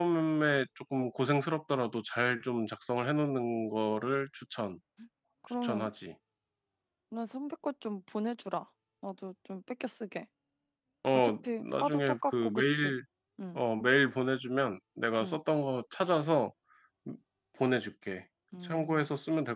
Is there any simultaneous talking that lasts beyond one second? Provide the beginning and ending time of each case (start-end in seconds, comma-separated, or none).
11.1-12.9